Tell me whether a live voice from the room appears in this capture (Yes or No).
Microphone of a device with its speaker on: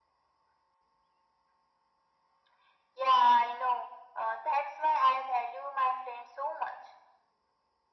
No